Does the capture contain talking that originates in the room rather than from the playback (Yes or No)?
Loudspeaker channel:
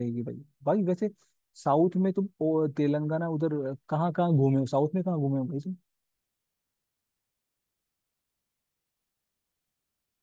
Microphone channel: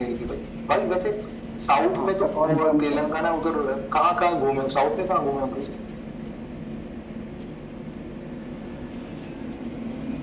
Yes